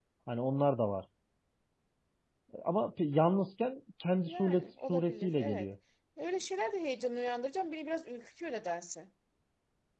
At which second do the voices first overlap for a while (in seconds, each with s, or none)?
4.3 s